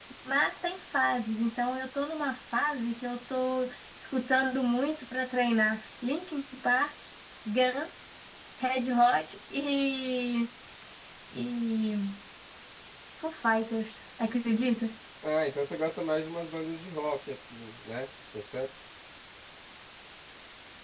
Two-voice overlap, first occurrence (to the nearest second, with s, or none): none